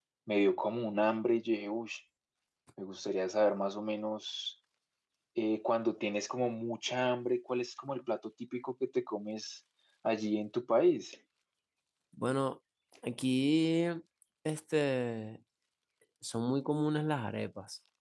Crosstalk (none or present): none